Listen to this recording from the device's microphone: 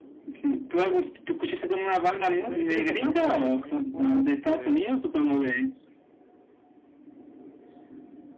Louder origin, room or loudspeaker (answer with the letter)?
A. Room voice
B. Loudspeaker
B